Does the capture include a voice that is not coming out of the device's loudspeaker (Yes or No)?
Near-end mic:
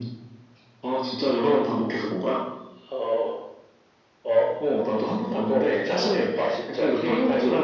No